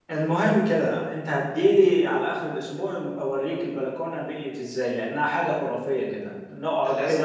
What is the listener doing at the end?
listening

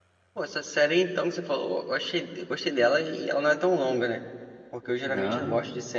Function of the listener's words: listening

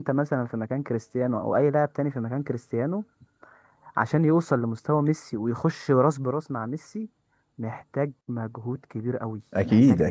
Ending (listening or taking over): listening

